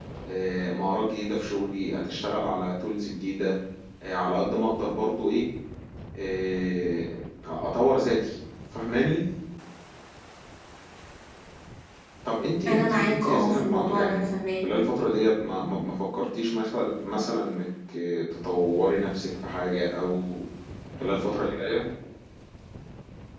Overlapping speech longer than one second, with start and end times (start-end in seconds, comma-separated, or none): 12.7-14.2